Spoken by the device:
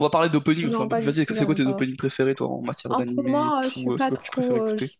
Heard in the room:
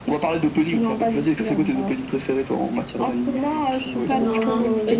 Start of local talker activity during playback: 4.1 s

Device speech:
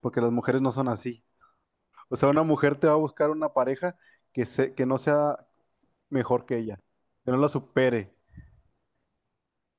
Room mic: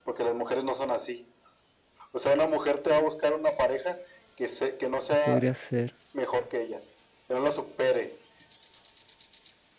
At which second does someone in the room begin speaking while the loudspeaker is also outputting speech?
5.1 s

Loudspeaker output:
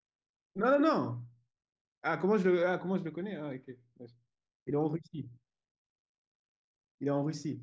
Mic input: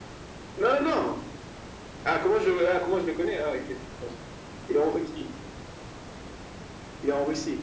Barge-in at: none

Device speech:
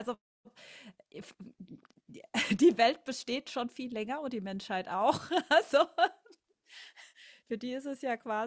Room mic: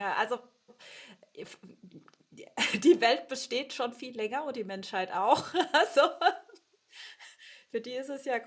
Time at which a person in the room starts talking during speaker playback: none

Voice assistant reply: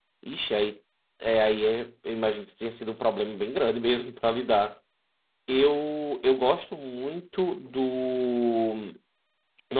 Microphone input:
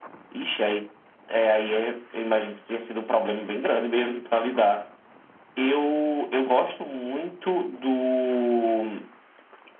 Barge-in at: none

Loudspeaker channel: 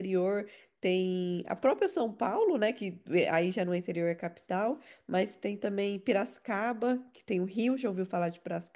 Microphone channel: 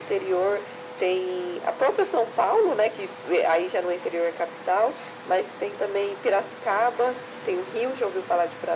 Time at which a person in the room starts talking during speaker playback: none

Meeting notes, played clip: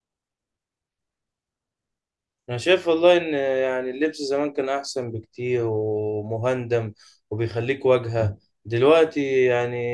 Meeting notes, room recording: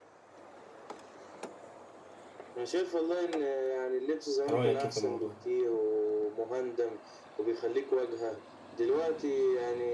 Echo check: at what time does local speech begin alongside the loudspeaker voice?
4.5 s

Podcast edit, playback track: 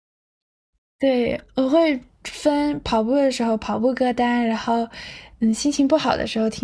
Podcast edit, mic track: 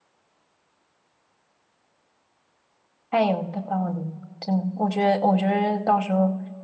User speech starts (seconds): 3.1 s

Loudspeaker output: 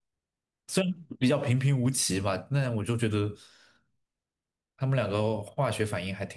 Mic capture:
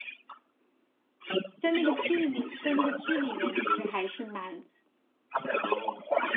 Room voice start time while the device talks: 1.6 s

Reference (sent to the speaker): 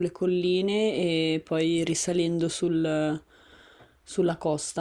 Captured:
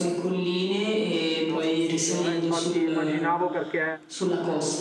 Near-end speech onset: 1.4 s

